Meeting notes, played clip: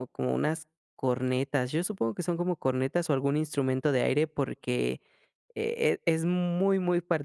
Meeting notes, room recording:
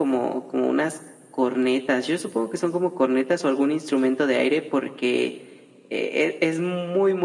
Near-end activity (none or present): none